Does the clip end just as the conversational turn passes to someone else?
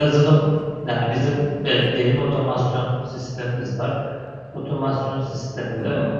No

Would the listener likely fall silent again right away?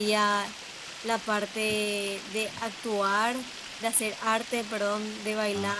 Yes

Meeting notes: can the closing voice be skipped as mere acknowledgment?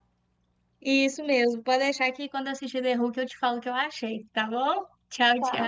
No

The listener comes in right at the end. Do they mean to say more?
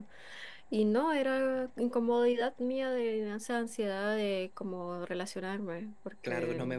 Yes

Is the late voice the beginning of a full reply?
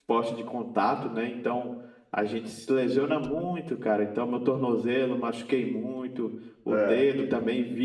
No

